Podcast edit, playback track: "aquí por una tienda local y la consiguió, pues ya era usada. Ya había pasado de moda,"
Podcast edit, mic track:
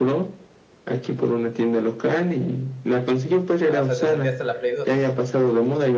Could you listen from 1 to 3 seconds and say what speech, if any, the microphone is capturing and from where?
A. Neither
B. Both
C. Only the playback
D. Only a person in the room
C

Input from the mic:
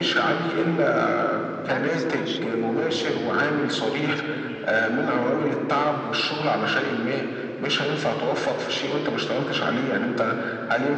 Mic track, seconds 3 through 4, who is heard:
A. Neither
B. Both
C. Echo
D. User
B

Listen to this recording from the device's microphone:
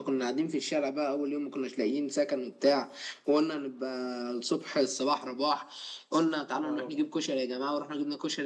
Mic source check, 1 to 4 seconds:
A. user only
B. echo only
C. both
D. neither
B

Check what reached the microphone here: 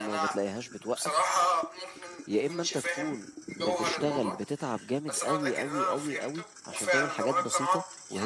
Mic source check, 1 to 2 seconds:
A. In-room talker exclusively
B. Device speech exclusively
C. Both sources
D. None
C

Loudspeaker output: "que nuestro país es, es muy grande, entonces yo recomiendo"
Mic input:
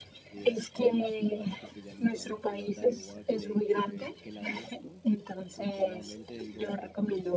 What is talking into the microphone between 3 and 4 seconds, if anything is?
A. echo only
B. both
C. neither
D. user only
B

